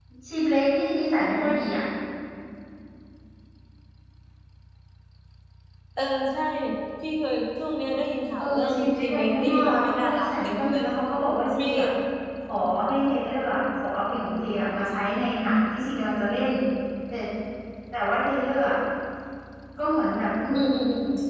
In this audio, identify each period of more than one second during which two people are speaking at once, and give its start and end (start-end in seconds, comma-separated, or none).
8.4-10.8